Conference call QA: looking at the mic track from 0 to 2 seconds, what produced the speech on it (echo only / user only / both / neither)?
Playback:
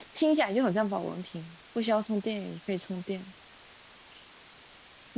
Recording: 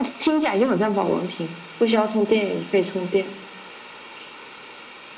echo only